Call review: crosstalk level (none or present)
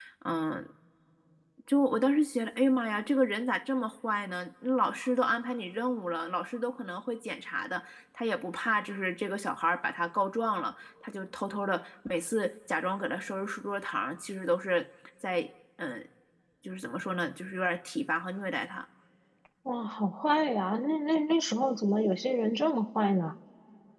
none